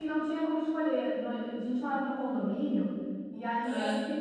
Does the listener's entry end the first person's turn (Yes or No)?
No